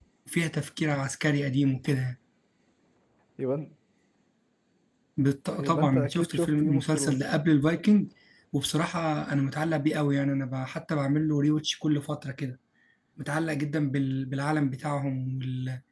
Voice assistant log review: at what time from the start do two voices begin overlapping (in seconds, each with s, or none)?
5.6 s